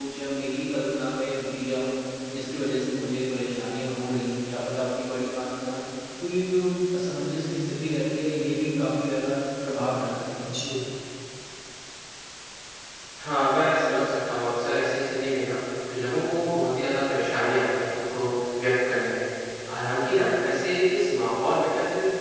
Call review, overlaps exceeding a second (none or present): none